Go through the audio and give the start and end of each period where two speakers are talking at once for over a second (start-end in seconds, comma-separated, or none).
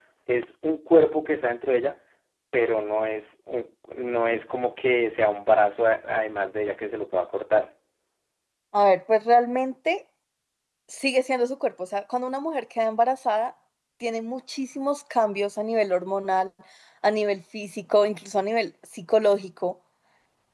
none